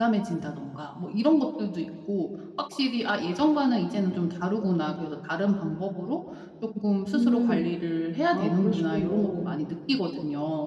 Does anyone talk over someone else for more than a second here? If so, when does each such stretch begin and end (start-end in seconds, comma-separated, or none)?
8.3-9.6